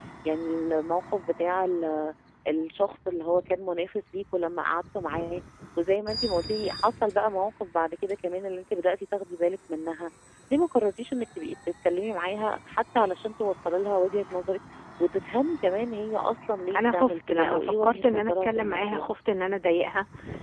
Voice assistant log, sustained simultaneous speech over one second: present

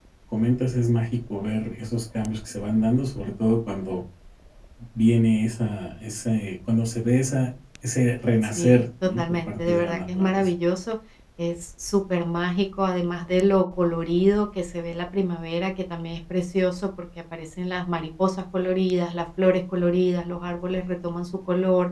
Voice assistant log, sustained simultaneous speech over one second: present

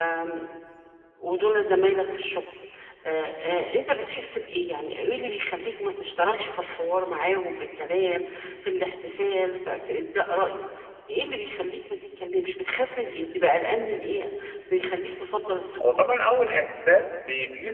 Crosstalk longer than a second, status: none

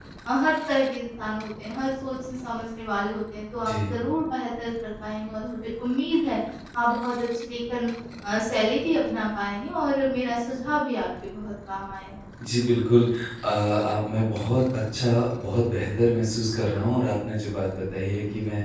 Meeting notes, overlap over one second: none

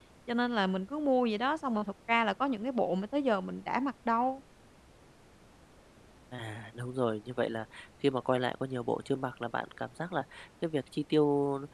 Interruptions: none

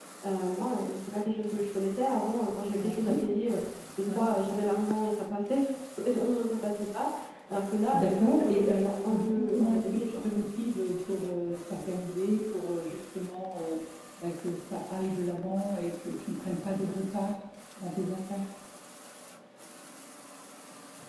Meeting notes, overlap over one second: present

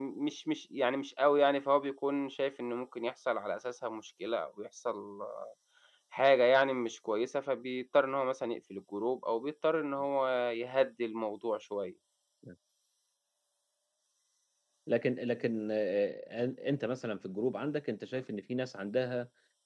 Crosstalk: none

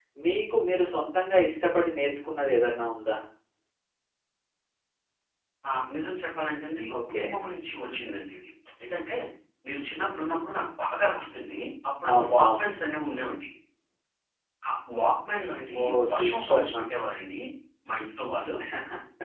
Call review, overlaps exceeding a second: present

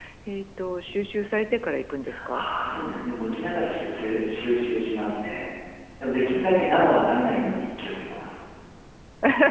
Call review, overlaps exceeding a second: none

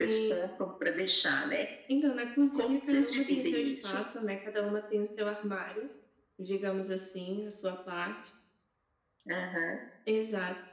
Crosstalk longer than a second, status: present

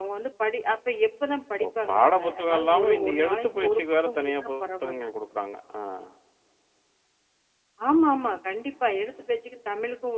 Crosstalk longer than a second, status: present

